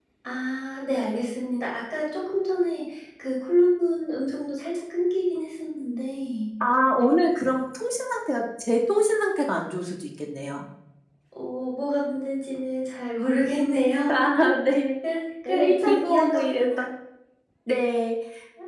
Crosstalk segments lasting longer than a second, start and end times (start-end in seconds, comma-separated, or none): 15.4-16.7